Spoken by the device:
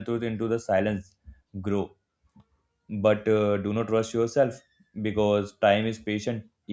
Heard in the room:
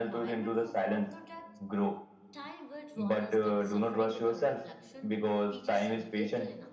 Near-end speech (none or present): present